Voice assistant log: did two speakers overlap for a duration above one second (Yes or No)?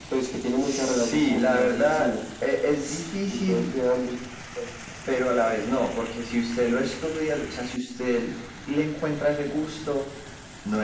Yes